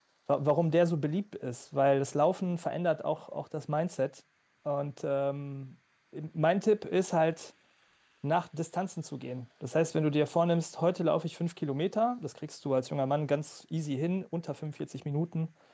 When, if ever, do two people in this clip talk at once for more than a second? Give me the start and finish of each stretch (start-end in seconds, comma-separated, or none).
none